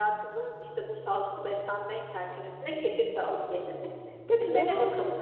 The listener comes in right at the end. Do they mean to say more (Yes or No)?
No